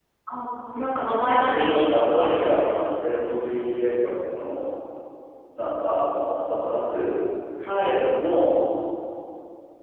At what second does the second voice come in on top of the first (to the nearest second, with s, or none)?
1 s